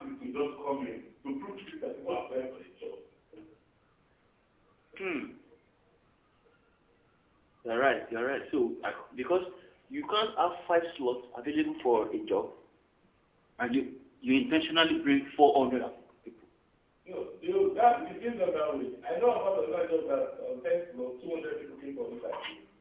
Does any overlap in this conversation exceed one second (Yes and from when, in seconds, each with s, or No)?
No